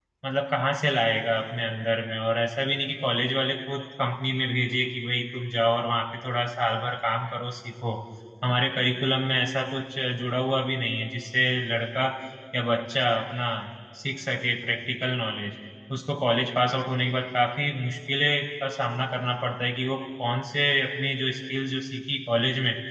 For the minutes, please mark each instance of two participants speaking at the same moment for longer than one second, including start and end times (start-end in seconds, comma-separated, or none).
none